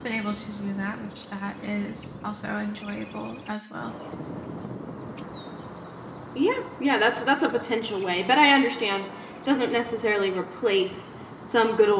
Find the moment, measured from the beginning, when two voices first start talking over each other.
none

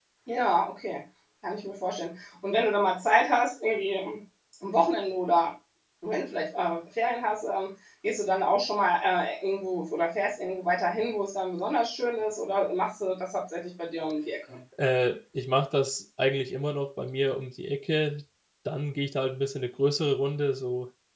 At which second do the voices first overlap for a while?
none

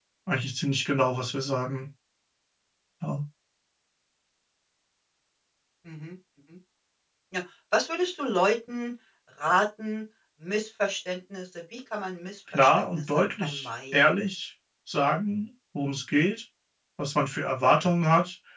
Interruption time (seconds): 12.5 s

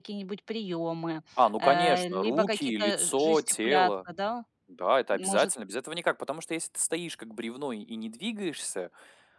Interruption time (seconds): 1.6 s

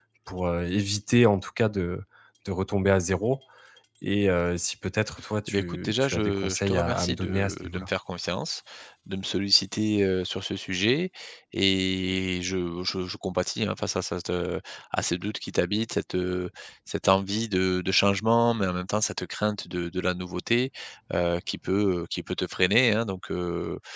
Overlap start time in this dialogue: 5.5 s

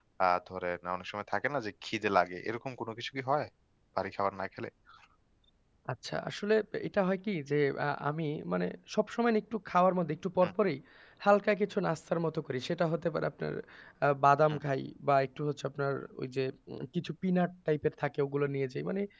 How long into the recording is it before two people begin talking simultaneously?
none

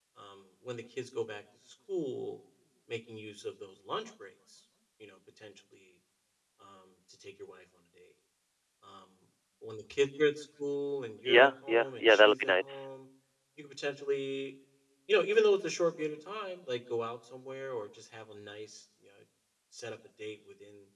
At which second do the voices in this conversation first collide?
11.2 s

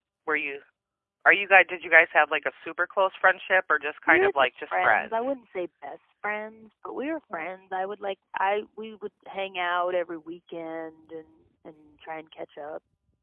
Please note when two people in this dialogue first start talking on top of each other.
4.1 s

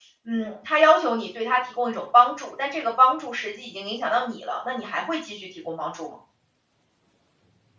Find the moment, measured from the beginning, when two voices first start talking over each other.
none

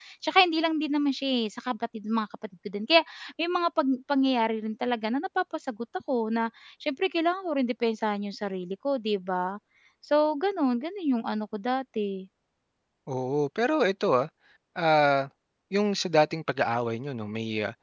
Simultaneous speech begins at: none

